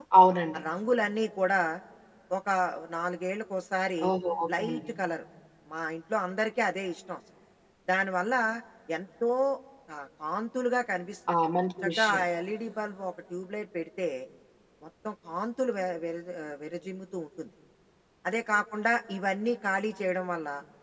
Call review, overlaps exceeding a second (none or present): none